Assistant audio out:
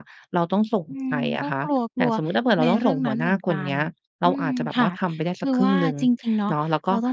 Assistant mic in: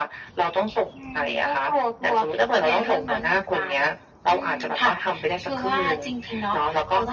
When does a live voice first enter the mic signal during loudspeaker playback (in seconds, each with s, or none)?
none